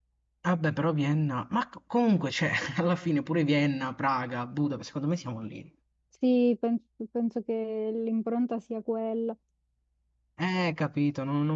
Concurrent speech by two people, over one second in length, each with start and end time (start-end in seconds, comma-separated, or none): none